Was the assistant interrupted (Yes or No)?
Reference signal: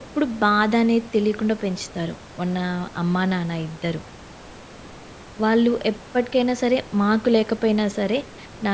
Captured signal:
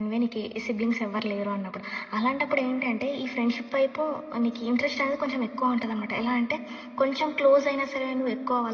Yes